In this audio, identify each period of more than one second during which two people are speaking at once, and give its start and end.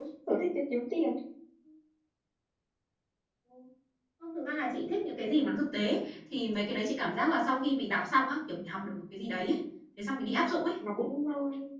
none

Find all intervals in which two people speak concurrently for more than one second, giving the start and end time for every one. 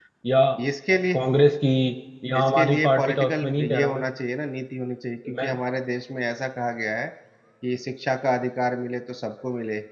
2.4-4.0

